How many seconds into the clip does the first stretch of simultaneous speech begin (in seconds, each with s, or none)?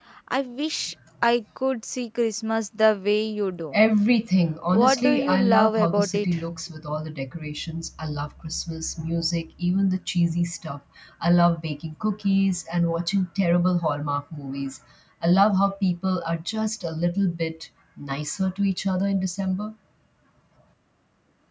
4.7 s